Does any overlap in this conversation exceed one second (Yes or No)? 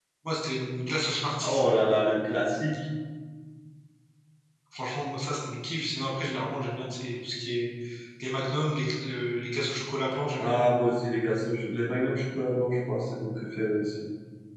No